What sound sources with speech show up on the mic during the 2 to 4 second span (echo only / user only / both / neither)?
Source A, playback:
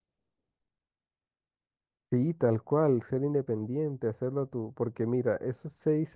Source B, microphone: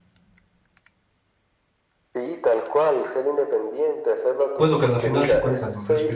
echo only